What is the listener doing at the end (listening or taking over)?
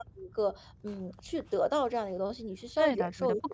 taking over